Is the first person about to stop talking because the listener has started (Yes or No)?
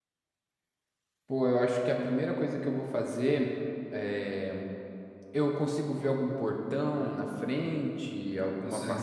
Yes